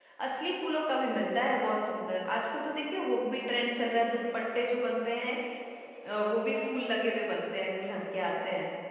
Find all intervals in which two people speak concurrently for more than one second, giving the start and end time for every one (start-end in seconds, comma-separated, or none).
none